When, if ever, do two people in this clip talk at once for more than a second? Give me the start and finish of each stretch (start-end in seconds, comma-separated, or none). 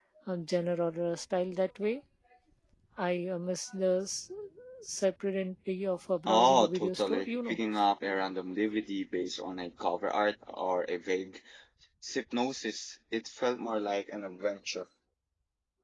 6.3-7.6